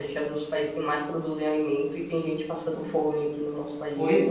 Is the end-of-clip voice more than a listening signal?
Yes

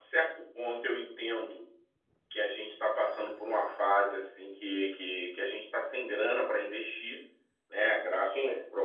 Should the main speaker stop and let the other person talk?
No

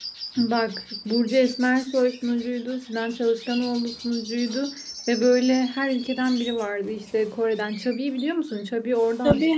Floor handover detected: Yes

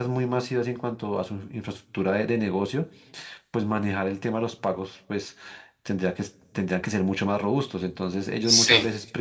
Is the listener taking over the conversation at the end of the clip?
No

